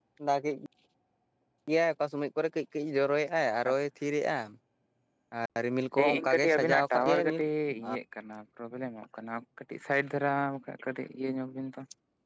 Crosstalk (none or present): present